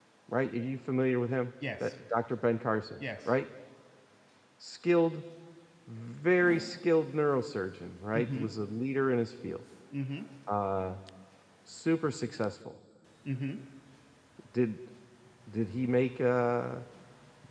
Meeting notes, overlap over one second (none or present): none